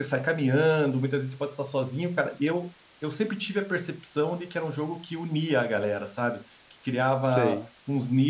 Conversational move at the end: listening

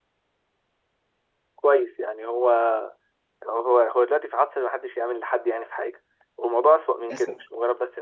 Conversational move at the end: listening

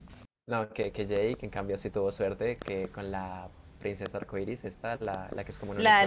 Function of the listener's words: taking over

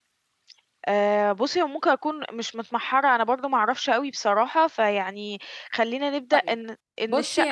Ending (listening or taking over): taking over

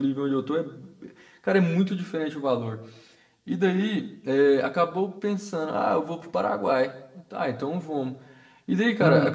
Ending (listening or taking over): listening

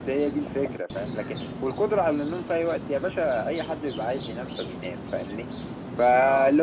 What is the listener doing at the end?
listening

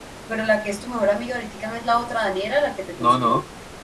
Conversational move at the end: taking over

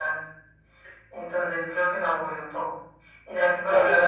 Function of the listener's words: taking over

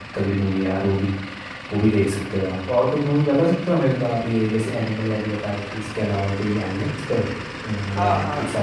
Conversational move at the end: taking over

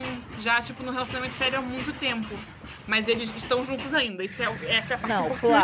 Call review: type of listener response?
taking over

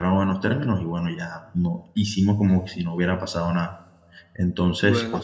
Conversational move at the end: listening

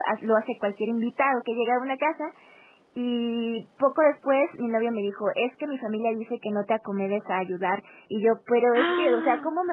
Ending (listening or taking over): listening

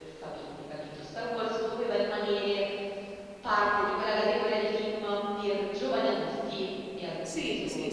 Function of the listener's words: taking over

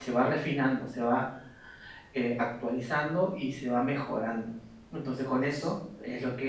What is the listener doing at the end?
listening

